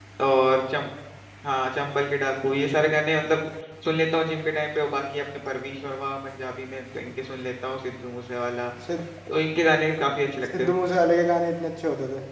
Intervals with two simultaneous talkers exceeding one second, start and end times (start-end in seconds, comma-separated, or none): none